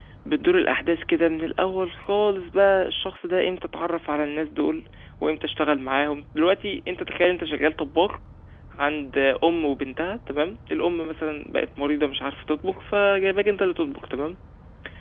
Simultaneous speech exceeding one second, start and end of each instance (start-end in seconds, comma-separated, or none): none